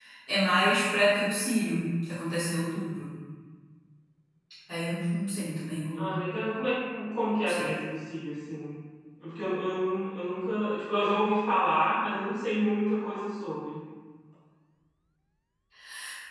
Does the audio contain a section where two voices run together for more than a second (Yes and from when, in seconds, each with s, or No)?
No